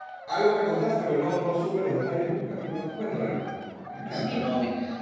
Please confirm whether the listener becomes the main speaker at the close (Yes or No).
Yes